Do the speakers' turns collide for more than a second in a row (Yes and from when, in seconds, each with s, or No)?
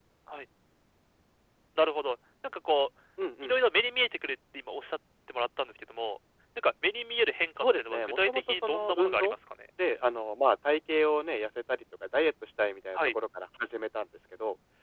Yes, from 7.6 s